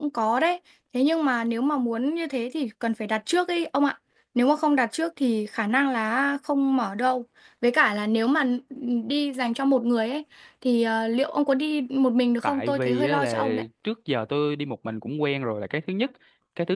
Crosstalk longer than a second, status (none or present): present